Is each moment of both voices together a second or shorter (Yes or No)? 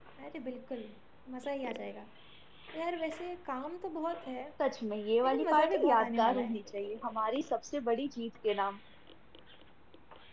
No